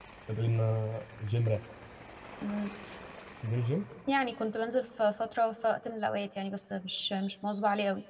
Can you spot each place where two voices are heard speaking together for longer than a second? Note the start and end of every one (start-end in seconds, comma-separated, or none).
none